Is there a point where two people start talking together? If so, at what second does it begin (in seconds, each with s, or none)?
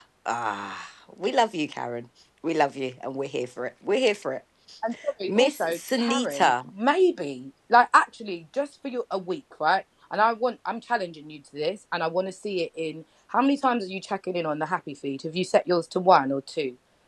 5.3 s